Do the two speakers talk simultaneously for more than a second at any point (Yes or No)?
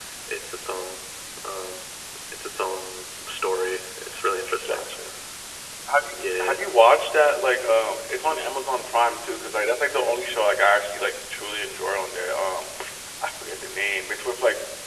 No